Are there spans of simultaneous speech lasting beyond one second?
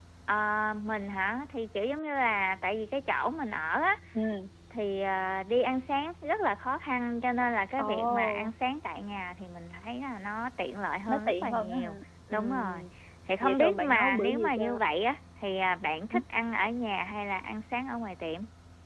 Yes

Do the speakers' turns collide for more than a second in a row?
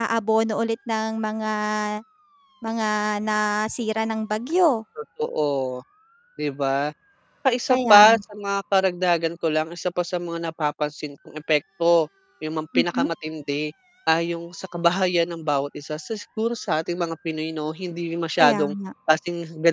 No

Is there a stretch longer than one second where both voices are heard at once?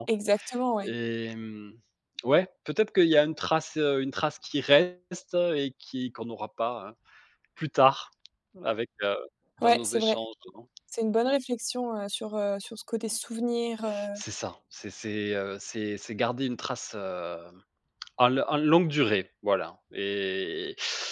No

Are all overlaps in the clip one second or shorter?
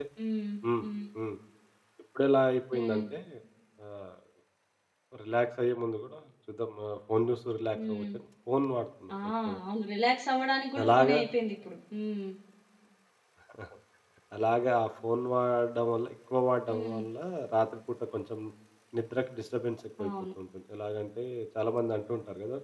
Yes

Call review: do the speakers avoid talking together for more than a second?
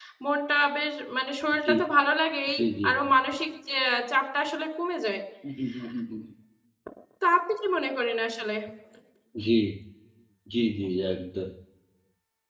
Yes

